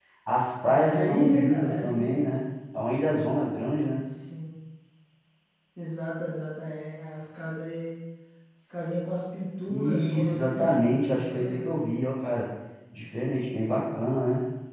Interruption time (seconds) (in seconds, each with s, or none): 0.7 s